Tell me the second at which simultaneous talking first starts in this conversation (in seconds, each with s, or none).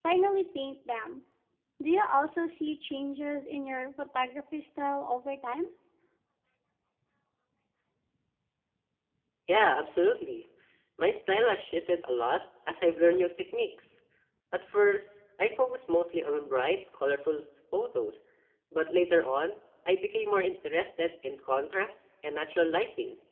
none